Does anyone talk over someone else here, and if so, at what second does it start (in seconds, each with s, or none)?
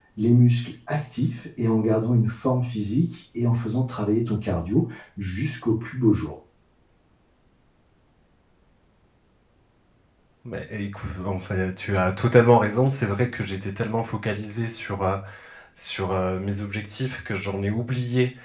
none